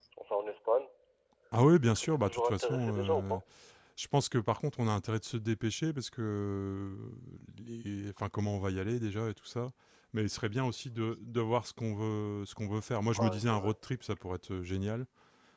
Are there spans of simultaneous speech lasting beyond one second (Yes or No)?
Yes